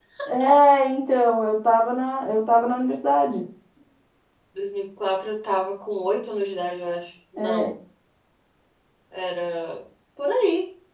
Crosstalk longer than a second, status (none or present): none